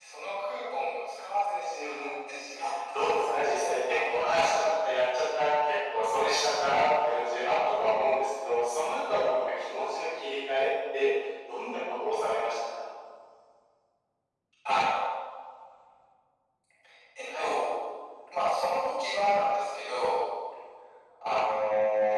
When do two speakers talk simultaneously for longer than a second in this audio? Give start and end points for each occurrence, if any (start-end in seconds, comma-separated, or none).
2.9-4.5